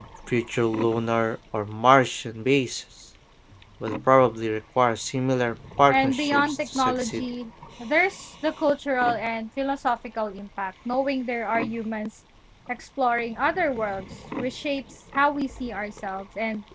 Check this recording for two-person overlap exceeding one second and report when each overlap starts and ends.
5.9-7.2

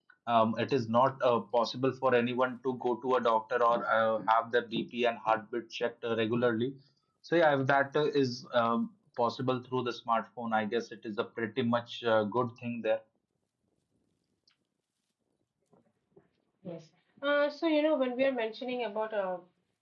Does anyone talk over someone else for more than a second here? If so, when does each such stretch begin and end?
none

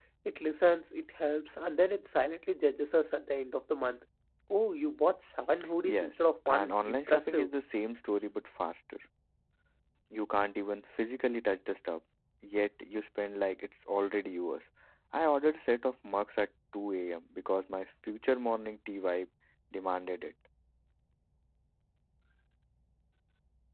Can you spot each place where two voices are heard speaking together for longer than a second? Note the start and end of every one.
5.8-7.5

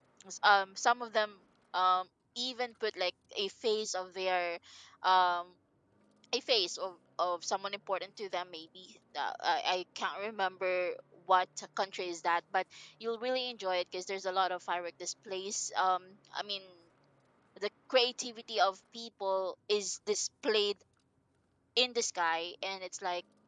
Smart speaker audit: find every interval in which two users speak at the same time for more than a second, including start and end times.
none

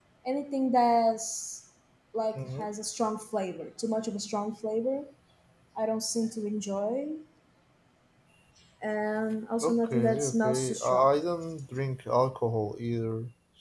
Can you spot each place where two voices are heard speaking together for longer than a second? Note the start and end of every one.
9.6-11.1

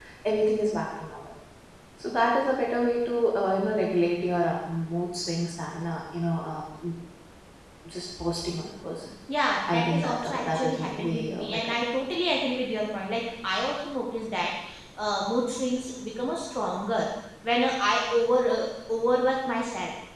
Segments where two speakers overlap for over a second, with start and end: 9.7-11.7

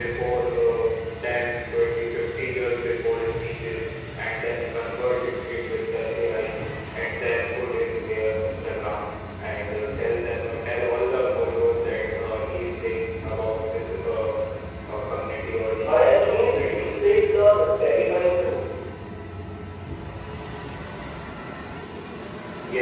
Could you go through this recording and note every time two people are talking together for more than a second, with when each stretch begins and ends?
15.9-17.3

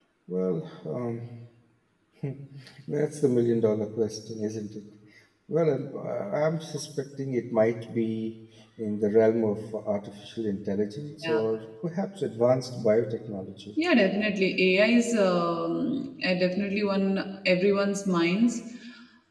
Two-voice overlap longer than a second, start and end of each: none

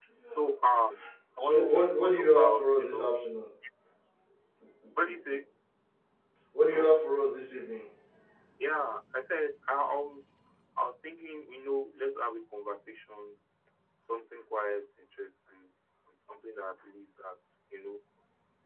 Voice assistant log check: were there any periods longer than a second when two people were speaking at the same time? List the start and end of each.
1.4-3.2

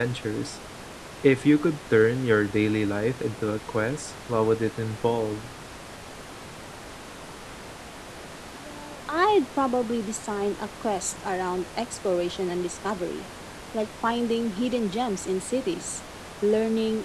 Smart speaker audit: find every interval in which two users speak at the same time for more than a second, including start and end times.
none

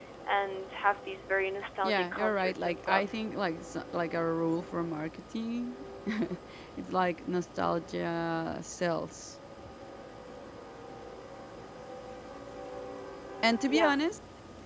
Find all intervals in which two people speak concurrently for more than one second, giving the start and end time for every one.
1.8-3.0

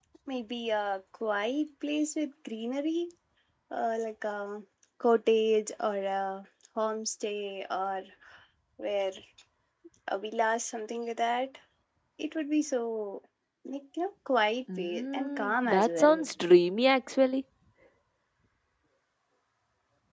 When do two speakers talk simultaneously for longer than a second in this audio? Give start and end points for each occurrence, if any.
14.8-16.3

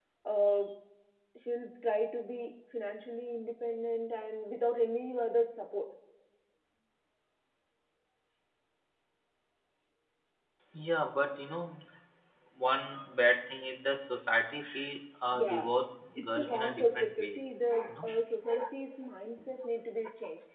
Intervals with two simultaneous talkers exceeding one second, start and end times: 16.1-17.4

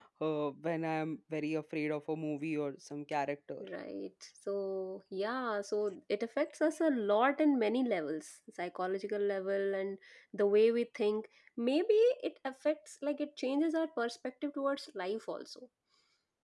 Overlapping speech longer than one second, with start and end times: none

